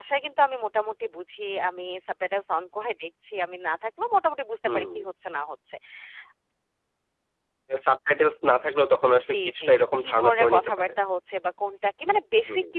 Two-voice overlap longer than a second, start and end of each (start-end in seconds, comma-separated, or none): 9.3-10.9